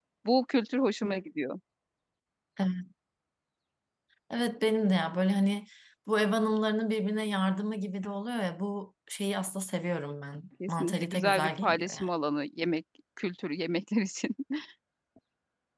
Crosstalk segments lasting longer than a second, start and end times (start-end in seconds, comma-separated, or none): 10.7-12.1